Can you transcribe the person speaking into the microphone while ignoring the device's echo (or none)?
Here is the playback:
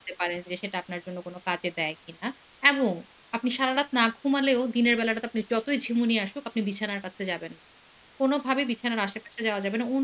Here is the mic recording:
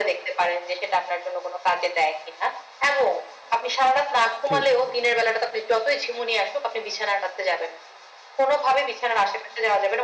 ঠিক।